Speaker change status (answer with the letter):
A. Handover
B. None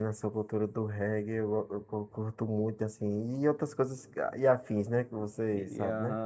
A